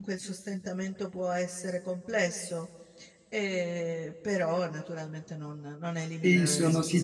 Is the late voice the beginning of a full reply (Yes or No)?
Yes